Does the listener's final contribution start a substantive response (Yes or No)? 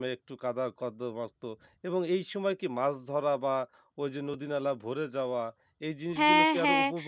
Yes